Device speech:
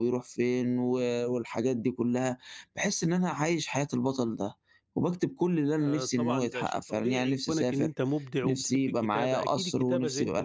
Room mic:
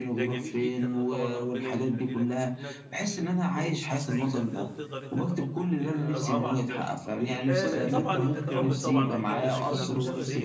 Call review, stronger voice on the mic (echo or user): echo